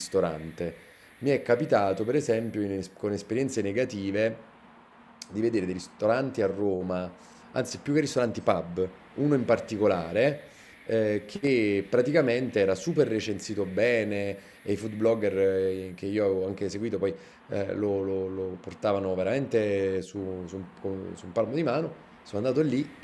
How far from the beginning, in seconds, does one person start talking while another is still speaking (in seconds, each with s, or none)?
none